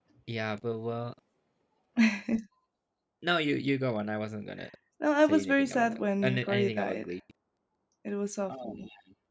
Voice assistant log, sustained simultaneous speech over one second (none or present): present